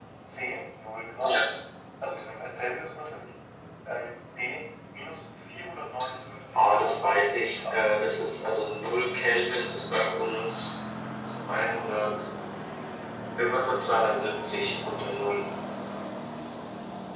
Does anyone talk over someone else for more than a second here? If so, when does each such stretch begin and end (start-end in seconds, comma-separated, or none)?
6.5-7.8